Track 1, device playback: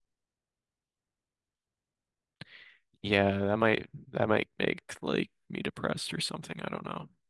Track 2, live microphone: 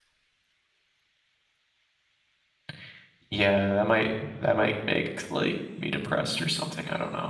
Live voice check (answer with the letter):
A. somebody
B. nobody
B